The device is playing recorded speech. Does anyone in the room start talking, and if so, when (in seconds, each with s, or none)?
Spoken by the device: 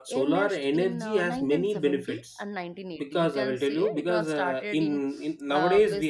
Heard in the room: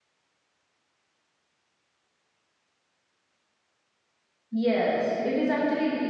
4.5 s